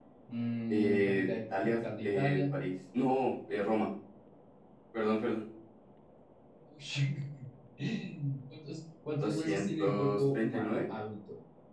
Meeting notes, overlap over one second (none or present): present